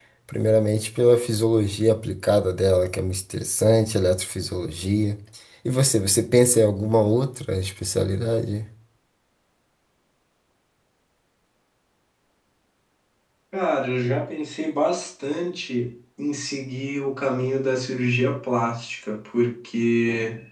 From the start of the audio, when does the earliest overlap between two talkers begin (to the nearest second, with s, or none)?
none